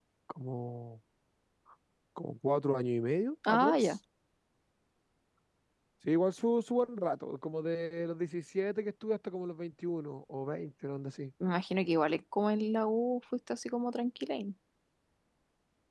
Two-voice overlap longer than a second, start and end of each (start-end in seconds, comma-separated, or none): none